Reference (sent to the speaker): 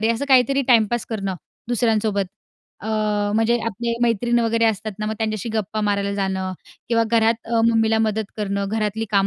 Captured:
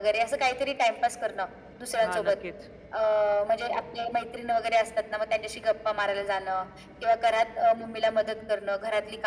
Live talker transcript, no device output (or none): हां नक्कीच,